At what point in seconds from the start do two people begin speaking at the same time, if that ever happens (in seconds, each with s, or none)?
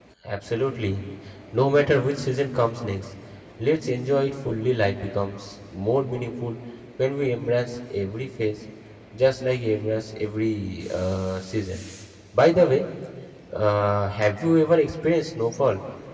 none